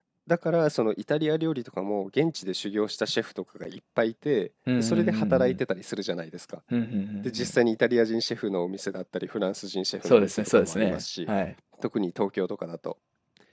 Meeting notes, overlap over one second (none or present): present